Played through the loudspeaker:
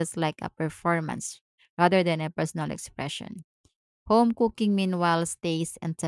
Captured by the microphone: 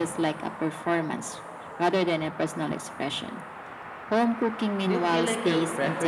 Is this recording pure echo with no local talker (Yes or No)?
No